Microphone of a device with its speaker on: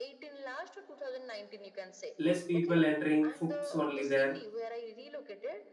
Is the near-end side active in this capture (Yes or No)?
Yes